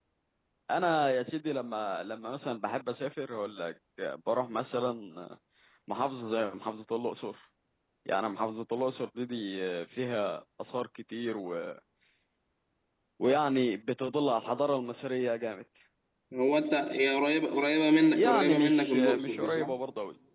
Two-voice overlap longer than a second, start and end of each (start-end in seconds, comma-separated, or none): 18.1-19.7